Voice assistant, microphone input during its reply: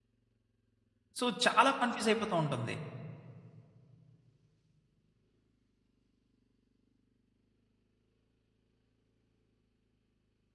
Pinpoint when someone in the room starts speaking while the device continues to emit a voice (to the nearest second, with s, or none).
1 s